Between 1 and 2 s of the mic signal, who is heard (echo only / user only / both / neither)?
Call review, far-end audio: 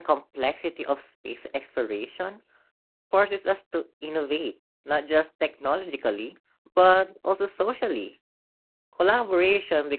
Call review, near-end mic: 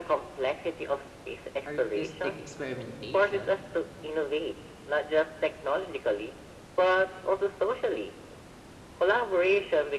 both